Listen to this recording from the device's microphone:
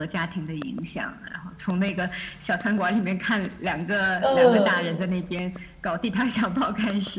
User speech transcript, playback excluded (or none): 嗯。